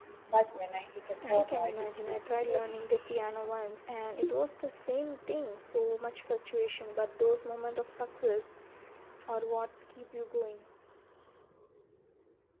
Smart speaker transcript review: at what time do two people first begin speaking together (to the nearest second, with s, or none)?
1 s